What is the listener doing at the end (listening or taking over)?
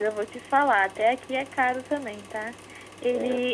listening